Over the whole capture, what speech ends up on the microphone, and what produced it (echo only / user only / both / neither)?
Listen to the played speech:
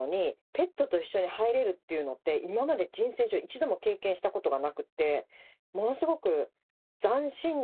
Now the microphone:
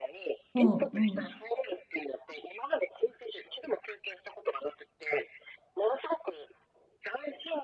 both